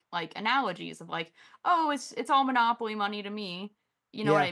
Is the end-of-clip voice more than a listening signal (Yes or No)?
No